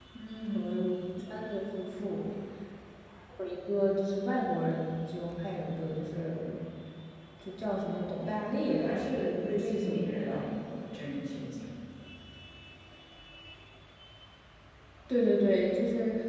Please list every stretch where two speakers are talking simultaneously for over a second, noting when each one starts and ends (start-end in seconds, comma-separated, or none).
7.9-10.4